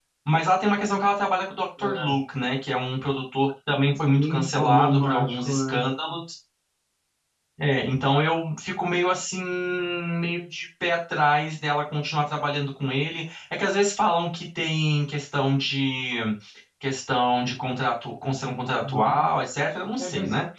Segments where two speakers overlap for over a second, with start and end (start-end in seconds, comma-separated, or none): 4.0-5.8